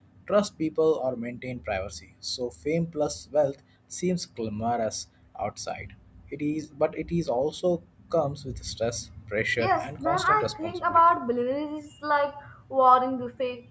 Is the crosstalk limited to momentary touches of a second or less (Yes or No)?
No